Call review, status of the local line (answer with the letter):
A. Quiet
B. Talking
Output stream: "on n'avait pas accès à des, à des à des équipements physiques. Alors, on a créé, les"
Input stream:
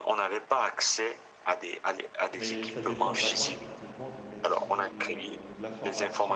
B